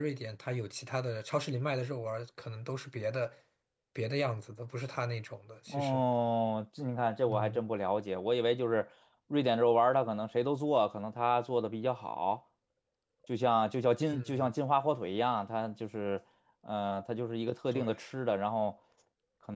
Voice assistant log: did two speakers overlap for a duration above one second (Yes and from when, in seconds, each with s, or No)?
No